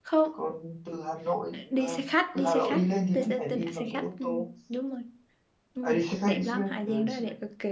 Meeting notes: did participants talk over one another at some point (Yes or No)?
Yes